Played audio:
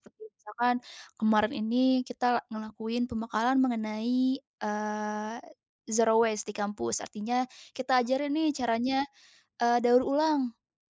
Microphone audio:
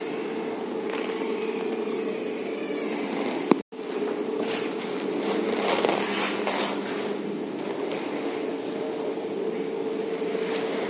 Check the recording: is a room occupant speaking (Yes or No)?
No